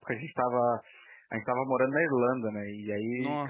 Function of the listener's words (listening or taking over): listening